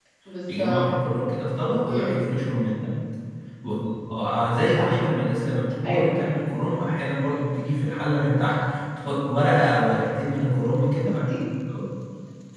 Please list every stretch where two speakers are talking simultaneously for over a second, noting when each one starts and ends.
none

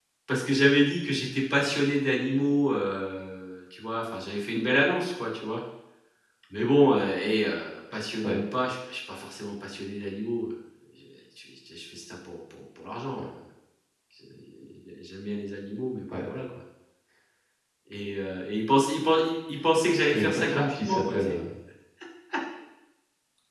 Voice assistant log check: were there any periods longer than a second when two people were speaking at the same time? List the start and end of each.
20.1-21.4

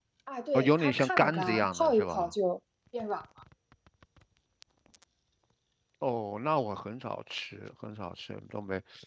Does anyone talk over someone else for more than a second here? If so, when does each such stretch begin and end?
0.5-2.3

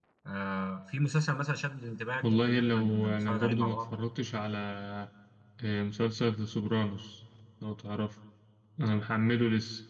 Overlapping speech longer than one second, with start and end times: 2.2-3.8

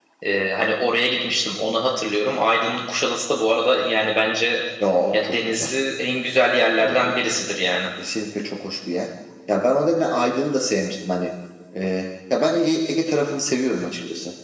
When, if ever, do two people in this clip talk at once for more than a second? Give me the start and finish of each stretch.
none

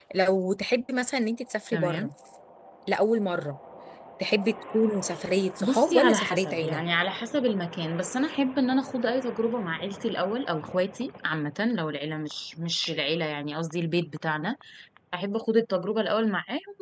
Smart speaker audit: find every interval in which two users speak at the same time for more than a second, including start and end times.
5.6-6.8

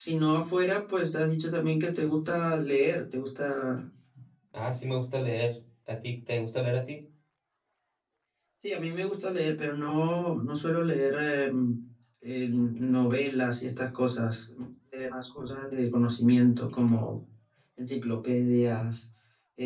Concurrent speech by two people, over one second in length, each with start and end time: none

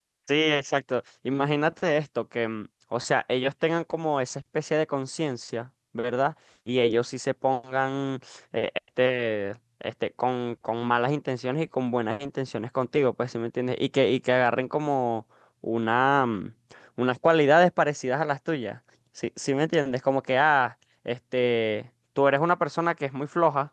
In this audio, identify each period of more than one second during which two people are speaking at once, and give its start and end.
none

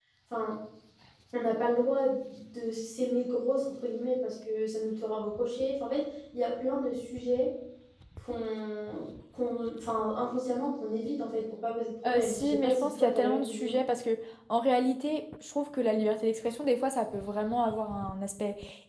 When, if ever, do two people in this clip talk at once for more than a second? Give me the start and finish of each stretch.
12.1-13.8

